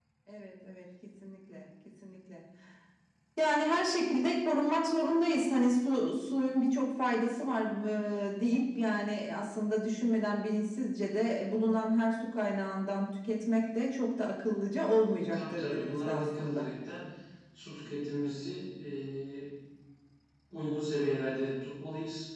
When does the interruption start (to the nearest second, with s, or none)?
15 s